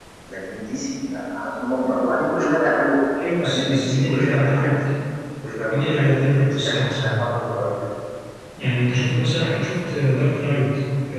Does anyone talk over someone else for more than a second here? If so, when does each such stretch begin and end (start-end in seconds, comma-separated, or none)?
3.4-4.8, 5.7-7.2